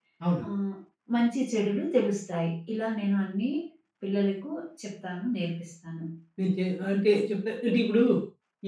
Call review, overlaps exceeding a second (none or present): none